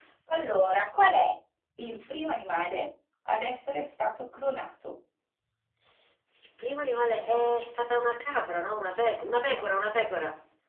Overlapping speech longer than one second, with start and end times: none

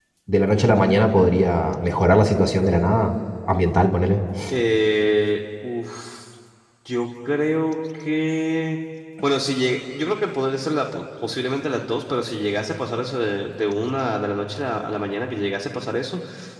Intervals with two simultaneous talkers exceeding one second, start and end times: none

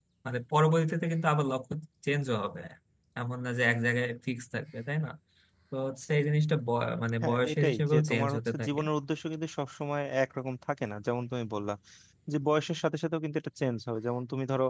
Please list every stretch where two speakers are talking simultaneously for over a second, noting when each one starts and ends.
7.2-8.8

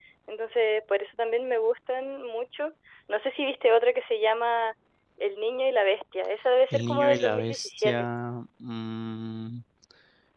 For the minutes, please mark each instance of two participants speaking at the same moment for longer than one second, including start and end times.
6.7-8.1

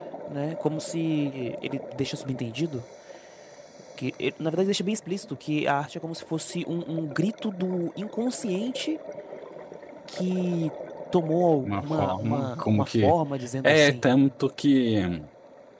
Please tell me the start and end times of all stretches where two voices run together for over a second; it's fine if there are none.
11.6-13.1

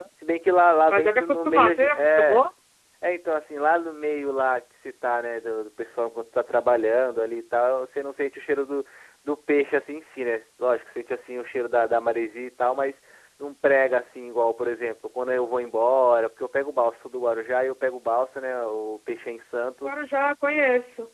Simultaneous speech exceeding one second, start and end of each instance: 0.9-2.5

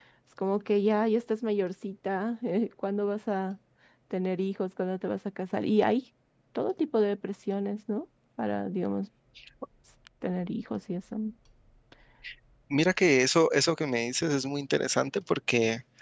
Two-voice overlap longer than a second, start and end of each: none

